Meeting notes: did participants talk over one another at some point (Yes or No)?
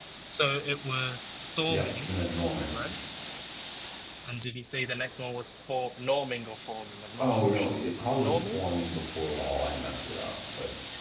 Yes